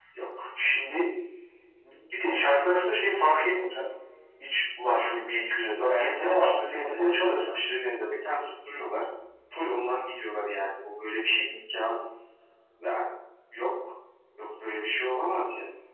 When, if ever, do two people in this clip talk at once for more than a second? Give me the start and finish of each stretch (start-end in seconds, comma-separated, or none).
5.9-7.6